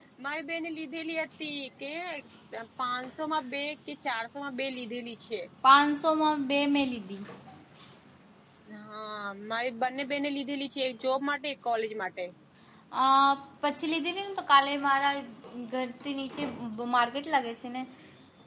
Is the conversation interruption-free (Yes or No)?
Yes